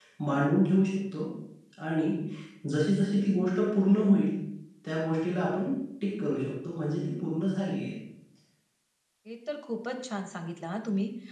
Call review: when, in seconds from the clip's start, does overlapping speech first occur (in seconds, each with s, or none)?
none